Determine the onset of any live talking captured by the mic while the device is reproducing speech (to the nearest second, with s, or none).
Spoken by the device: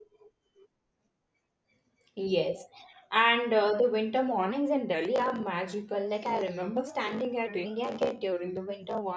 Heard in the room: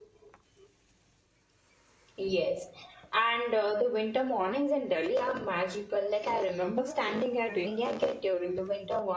none